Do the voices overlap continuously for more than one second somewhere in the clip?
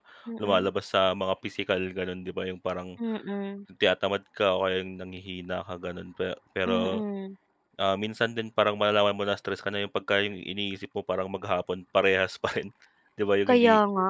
No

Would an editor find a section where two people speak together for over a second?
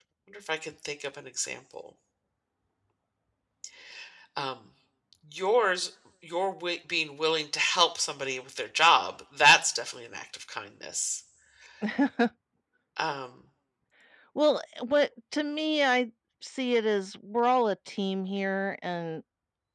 No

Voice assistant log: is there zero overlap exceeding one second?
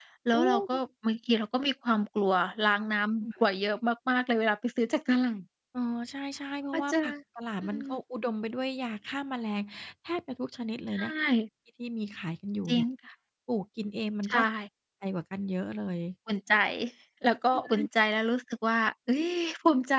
Yes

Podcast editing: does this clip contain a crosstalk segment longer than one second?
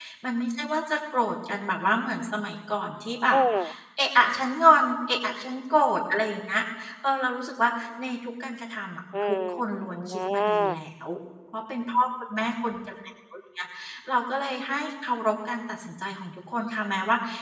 Yes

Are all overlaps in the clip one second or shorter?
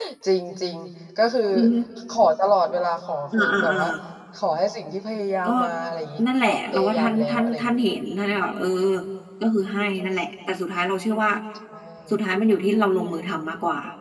No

